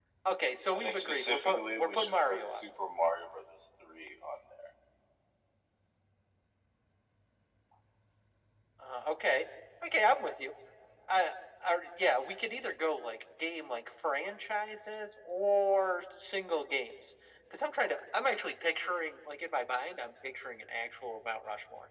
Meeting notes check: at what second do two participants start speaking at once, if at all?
1 s

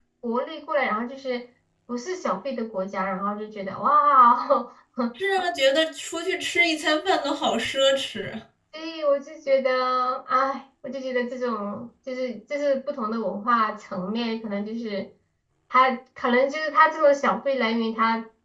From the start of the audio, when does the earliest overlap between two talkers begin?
none

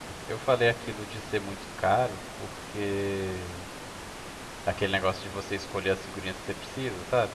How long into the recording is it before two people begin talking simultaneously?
none

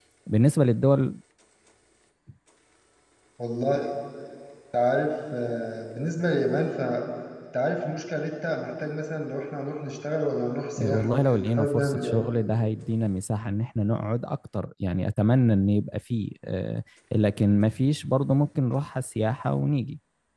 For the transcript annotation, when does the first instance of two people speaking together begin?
11 s

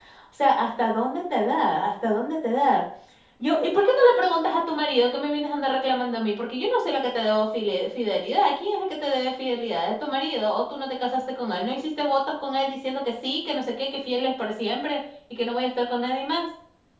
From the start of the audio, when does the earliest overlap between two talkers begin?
none

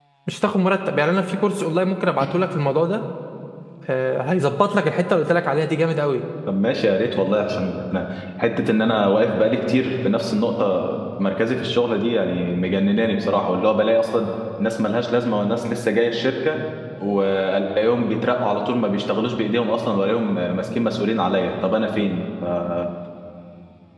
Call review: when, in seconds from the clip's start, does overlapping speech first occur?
none

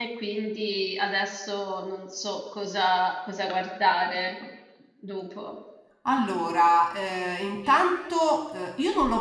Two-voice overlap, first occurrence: none

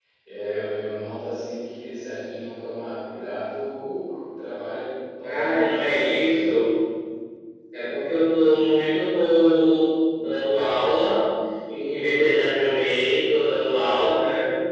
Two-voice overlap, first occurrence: 5 s

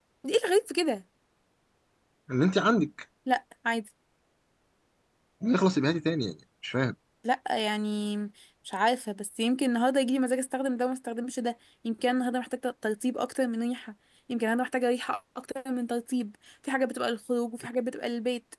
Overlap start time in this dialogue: none

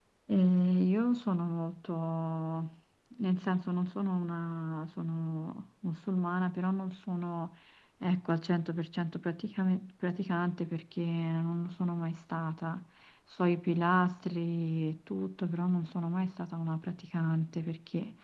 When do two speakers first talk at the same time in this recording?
none

